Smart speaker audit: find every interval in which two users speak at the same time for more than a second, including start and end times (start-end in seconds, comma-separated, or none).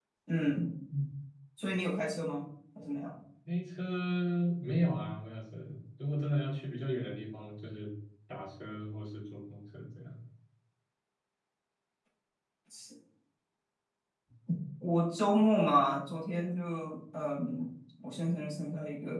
none